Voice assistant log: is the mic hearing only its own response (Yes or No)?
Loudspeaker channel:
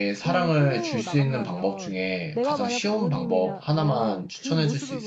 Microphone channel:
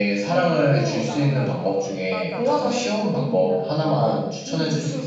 No